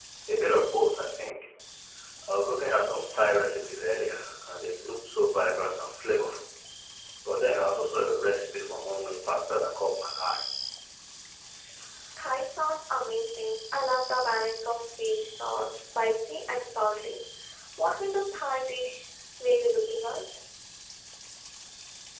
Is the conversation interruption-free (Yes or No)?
Yes